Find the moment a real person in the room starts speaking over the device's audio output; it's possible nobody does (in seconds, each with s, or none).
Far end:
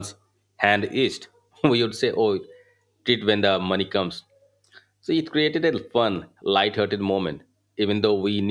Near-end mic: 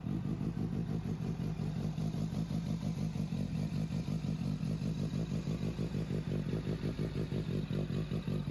none